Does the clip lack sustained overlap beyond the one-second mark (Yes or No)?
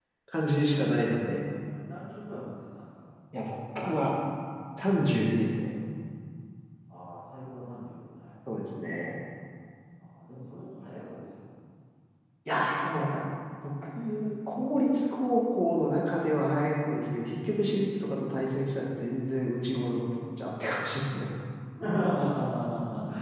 Yes